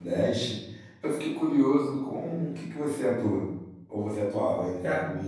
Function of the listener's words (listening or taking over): taking over